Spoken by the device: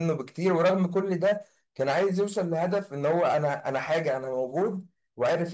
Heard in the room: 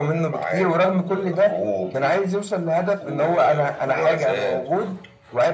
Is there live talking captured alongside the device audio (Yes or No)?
Yes